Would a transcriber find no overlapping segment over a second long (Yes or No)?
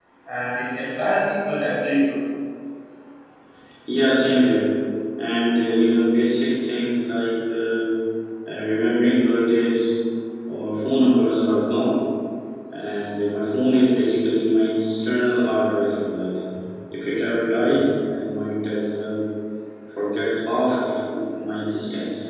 Yes